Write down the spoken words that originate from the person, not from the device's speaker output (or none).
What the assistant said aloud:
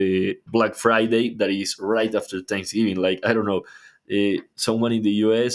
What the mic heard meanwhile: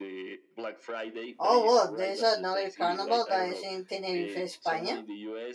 Oh well, there's another carnival that is in Tenerife, España,